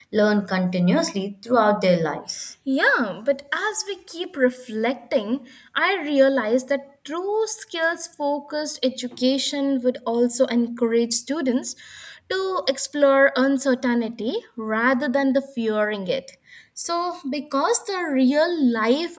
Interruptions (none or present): none